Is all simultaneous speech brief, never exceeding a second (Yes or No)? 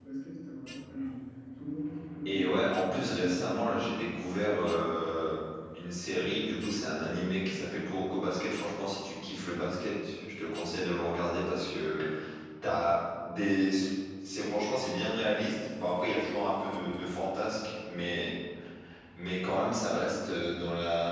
No